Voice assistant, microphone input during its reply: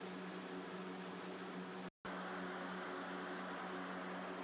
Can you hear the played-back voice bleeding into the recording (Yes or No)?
No